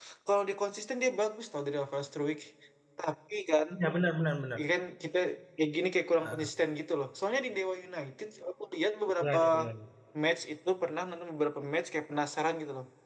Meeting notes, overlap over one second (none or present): none